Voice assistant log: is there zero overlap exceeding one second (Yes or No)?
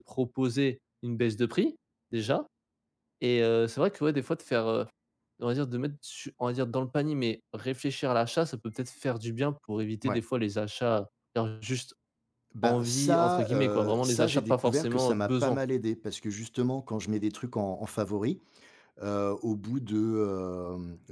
No